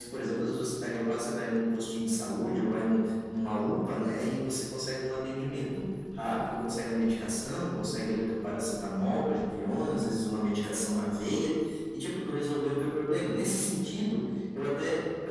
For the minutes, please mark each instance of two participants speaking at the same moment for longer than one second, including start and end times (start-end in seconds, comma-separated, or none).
none